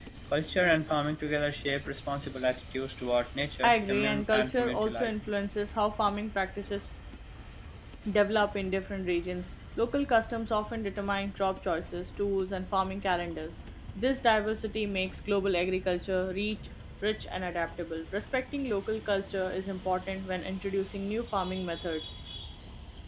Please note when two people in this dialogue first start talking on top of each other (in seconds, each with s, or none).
3.6 s